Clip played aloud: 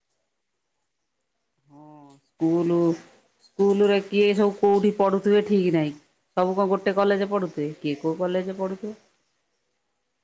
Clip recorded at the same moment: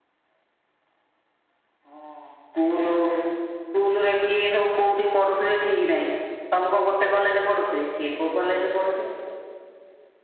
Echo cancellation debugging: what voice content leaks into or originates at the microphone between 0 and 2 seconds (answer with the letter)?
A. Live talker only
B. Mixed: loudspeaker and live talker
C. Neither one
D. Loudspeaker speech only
C